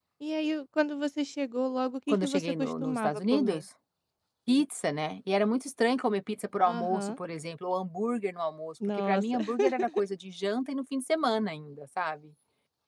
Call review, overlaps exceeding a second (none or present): present